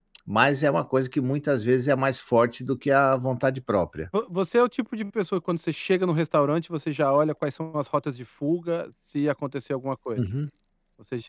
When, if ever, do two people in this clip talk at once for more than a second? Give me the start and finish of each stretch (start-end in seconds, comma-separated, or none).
none